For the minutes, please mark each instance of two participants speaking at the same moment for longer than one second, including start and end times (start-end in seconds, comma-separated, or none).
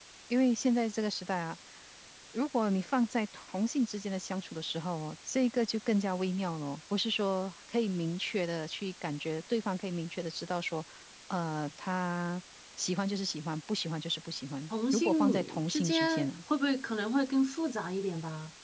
14.9-16.3